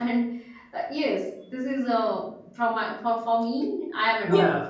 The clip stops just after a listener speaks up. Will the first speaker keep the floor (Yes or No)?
No